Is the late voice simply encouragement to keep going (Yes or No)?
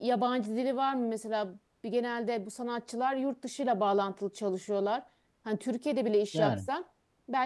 Yes